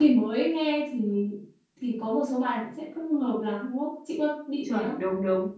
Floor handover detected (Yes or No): Yes